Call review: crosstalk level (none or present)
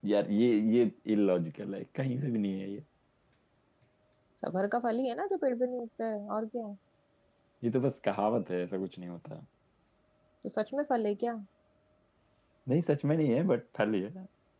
none